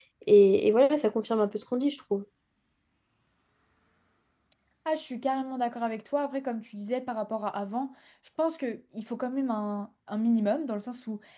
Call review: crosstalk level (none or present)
none